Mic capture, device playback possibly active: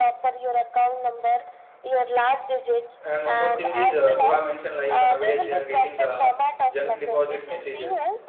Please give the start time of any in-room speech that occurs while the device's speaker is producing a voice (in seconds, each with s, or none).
3.0 s